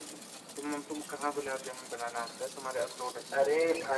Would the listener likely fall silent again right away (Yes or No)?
No